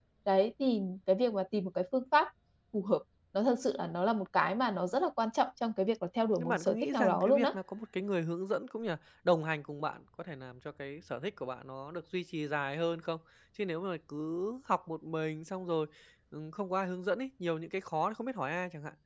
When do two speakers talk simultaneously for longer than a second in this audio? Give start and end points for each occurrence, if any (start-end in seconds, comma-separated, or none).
6.4-7.6